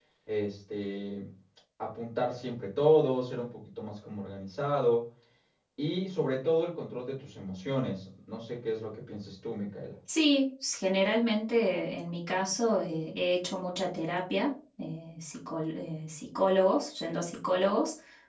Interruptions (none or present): none